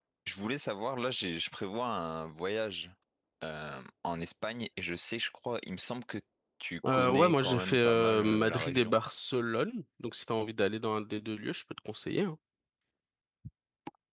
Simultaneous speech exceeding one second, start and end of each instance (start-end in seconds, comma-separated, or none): 6.9-9.0